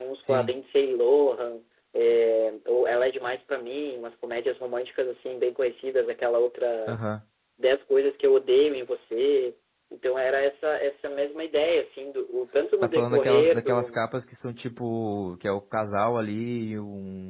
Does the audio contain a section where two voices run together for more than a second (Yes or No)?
Yes